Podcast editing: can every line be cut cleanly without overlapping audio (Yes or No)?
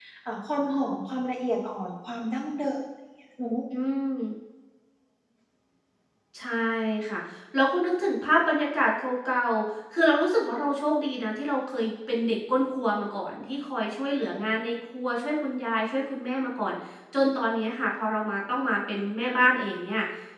Yes